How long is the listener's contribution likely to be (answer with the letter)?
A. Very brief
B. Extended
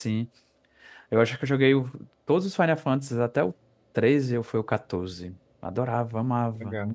B